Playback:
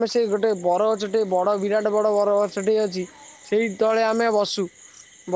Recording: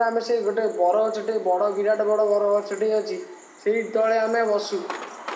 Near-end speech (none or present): none